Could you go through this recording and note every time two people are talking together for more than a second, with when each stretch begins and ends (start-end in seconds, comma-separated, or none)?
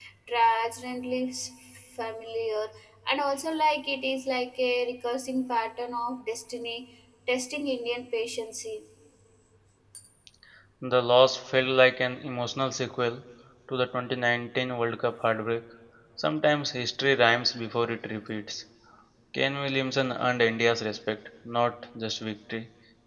none